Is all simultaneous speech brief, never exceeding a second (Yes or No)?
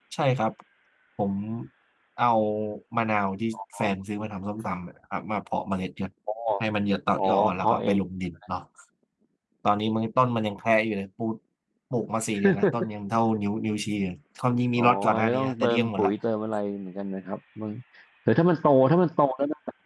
No